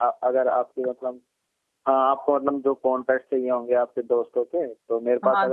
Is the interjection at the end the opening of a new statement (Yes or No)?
Yes